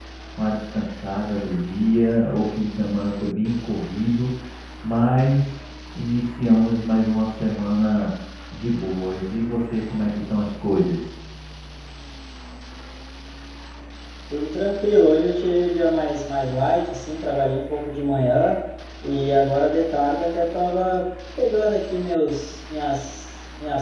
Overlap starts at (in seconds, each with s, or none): none